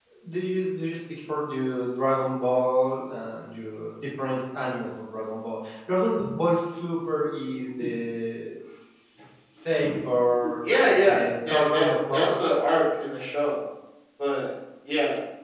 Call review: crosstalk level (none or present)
present